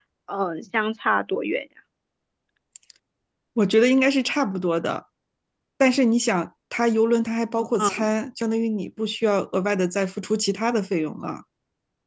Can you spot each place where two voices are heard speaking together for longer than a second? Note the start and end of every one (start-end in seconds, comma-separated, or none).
none